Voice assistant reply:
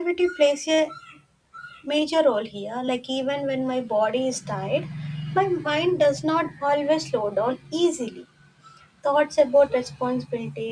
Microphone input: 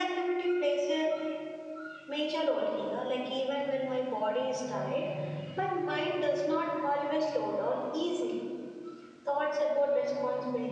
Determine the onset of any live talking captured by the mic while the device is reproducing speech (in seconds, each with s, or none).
none